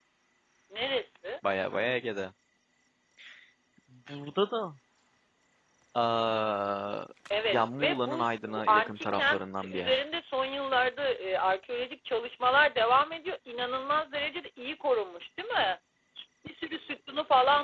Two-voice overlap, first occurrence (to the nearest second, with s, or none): 8 s